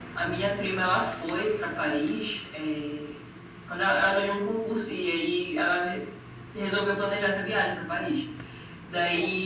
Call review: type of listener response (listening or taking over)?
listening